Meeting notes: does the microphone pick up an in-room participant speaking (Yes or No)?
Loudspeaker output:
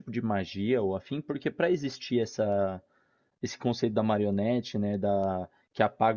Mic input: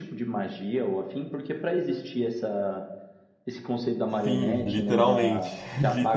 Yes